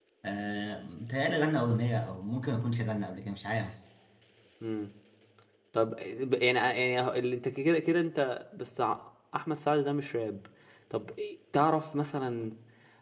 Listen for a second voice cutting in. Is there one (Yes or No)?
No